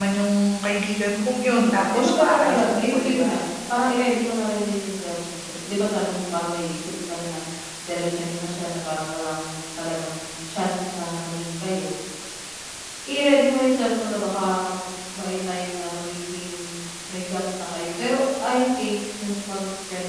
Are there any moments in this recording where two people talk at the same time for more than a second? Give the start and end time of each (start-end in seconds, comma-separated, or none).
1.6-3.4